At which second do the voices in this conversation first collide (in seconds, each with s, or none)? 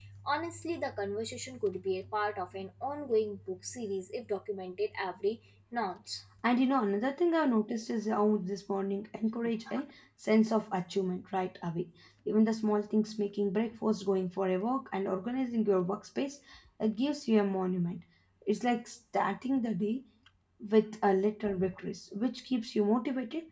none